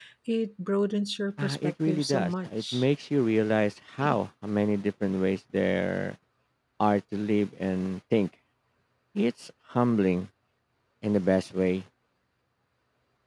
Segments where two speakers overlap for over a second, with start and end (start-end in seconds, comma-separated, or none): 1.4-2.8